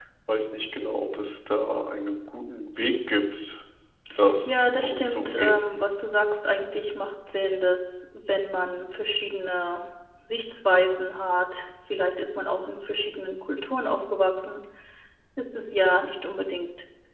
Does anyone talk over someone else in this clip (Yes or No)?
Yes